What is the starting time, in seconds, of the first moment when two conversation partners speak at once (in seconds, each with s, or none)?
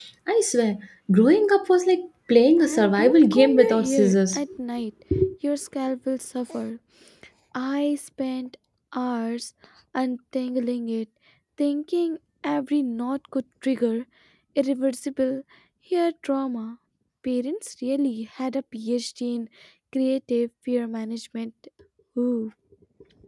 2.6 s